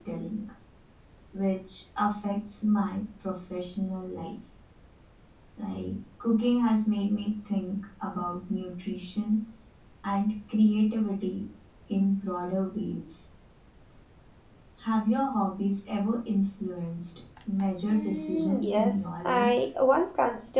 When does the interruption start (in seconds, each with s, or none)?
17.9 s